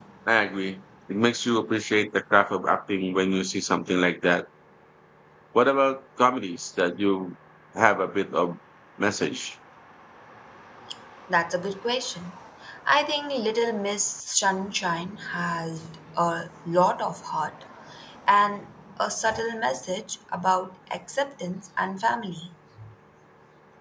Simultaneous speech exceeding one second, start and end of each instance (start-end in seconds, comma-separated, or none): none